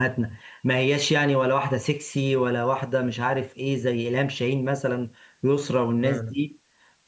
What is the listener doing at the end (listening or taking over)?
listening